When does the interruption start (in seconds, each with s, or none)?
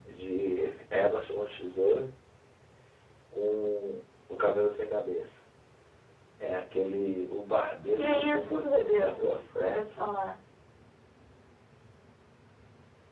8.0 s